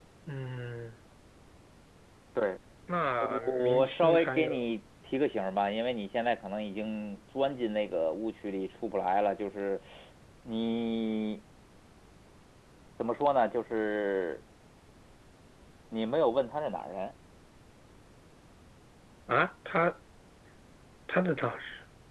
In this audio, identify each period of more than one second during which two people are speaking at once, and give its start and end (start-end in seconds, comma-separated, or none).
3.2-4.6